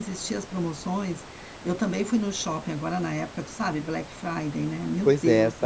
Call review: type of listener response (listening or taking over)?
taking over